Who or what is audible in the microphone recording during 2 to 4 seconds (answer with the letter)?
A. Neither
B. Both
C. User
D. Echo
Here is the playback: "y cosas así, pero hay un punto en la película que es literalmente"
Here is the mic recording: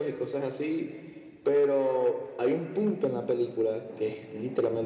D